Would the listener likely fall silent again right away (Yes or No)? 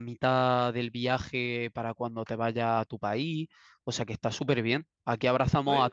Yes